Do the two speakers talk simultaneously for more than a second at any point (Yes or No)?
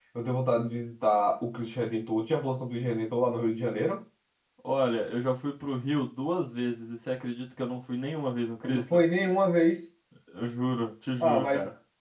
No